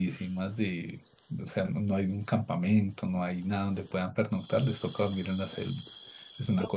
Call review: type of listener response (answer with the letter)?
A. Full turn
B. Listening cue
A